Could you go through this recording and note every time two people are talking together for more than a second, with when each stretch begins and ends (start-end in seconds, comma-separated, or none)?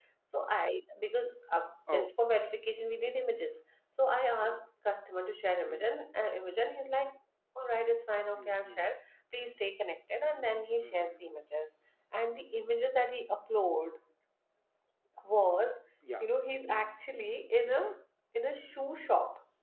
none